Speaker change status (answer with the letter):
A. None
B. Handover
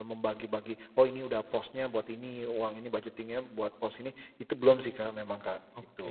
B